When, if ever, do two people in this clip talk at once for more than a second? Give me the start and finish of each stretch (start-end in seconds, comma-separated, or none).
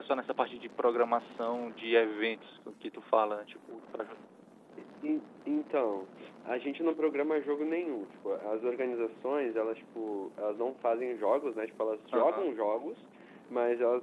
none